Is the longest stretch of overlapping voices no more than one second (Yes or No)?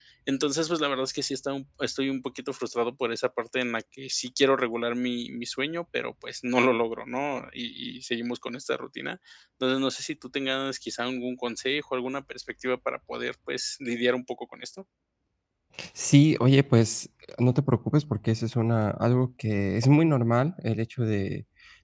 Yes